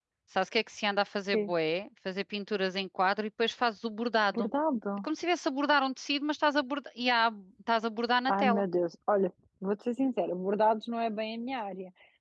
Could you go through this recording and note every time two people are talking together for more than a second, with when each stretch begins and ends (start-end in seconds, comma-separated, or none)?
none